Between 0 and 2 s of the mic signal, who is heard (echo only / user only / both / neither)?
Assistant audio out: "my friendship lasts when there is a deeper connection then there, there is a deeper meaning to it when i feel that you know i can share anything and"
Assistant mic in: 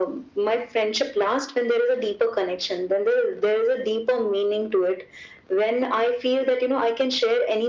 echo only